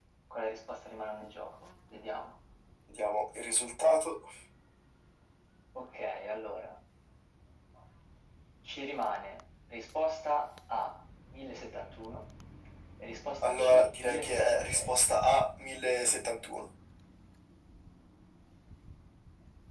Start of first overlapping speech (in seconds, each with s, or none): 13.4 s